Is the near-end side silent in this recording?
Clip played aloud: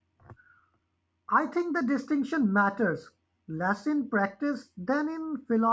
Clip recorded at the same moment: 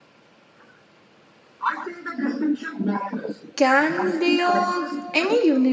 No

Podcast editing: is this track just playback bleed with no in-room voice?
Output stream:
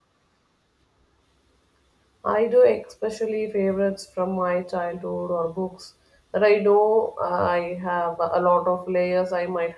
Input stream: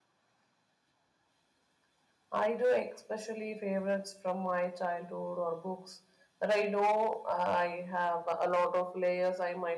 Yes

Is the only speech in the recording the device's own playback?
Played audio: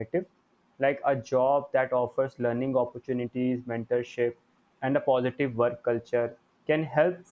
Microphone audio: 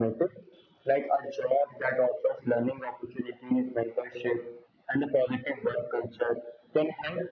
Yes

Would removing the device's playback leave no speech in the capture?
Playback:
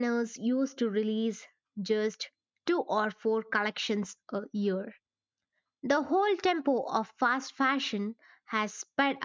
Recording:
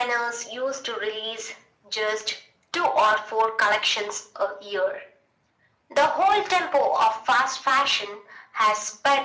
Yes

